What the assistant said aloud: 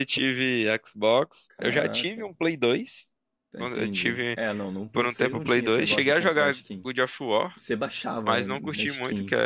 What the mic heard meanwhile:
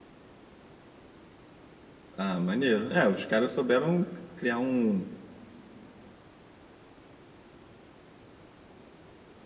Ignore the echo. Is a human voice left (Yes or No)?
Yes